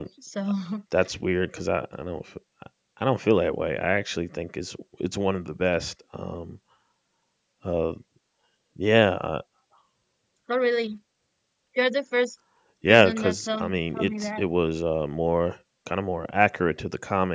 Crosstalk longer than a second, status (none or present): present